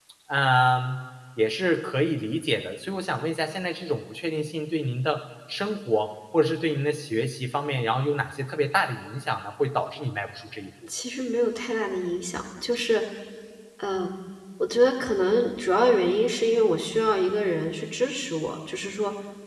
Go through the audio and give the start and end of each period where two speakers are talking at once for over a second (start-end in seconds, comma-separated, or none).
none